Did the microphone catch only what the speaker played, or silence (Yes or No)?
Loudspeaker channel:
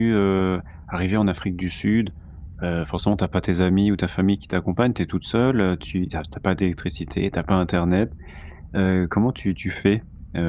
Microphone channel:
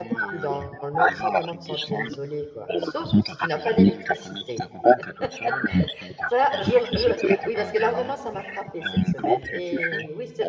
No